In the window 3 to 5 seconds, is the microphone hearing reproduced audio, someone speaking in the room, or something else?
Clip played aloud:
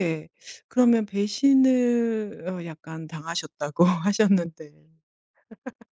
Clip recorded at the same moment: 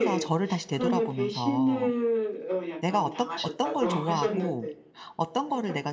both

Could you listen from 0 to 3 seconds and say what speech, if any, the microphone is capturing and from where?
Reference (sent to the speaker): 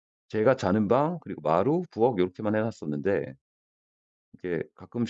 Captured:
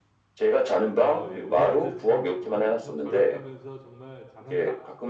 both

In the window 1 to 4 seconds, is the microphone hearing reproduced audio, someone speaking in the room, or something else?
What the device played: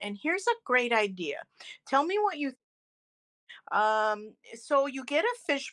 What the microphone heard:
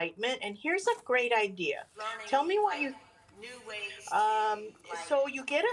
both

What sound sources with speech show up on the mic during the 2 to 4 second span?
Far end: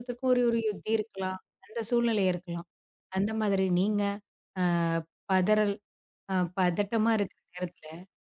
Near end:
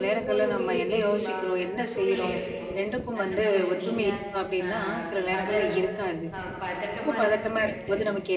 both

